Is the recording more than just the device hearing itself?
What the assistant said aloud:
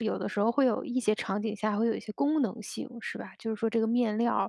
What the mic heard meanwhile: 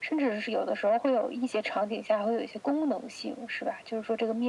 No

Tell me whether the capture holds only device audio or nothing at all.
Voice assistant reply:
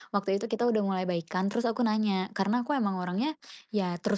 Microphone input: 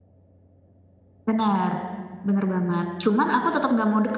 No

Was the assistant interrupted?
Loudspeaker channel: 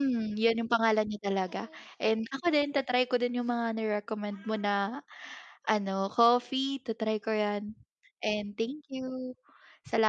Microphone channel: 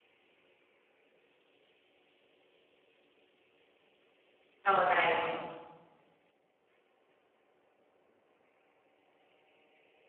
Yes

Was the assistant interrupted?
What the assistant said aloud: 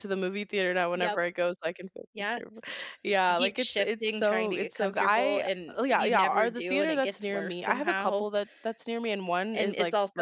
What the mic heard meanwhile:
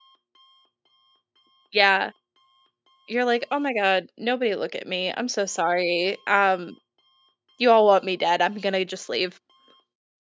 Yes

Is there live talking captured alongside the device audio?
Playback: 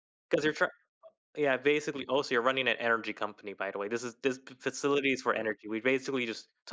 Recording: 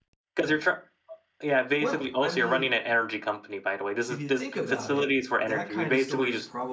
Yes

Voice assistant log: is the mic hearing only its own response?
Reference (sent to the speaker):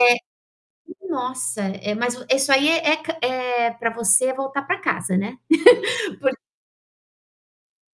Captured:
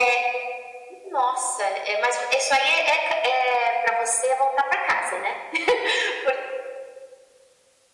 Yes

